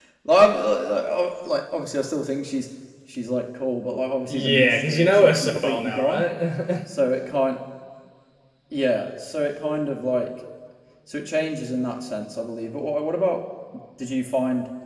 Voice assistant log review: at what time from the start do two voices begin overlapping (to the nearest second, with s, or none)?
4 s